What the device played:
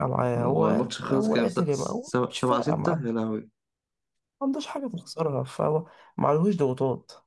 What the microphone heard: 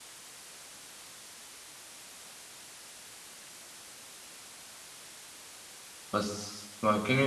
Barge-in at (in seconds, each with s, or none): 6.1 s